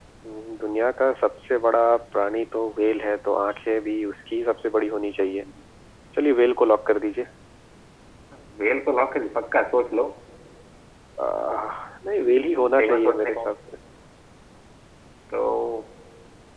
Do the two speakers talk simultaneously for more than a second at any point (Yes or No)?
Yes